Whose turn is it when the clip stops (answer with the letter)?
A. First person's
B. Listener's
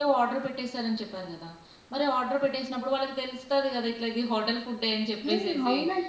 B